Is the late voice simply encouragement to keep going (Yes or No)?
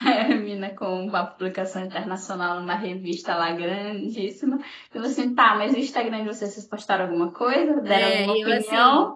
No